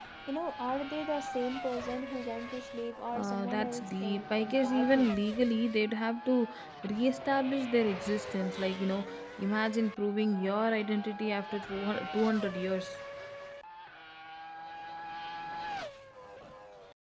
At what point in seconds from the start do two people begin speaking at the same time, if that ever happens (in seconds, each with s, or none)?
3.1 s